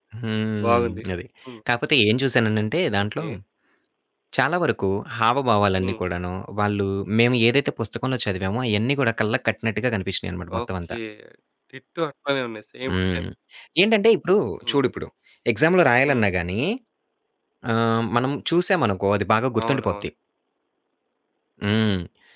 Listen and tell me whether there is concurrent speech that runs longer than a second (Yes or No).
No